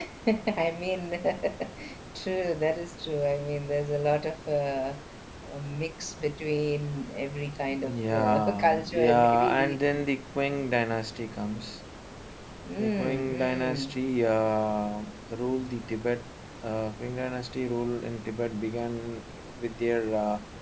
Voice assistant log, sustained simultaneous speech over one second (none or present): present